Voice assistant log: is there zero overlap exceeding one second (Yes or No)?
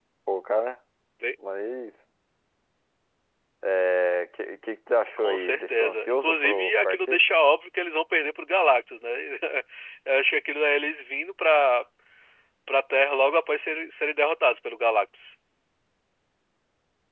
No